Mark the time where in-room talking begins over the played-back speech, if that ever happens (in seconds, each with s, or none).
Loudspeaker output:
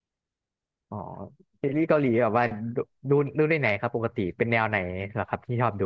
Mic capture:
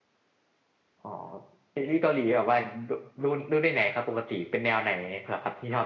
none